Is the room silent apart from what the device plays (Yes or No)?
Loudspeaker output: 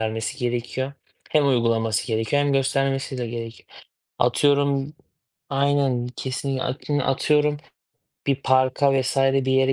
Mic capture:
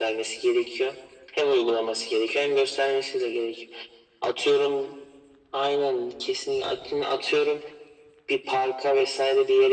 Yes